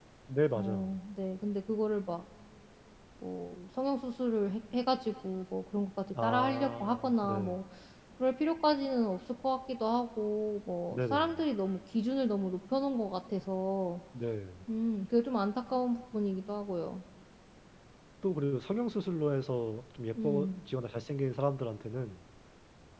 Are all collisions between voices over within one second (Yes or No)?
No